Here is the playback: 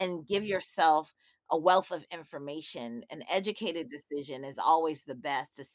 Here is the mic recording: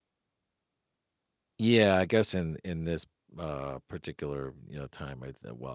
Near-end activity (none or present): present